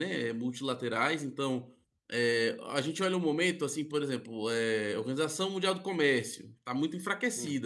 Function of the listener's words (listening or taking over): listening